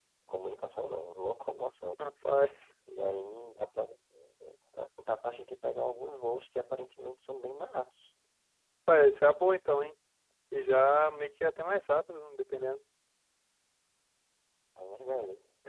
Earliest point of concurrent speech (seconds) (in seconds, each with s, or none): none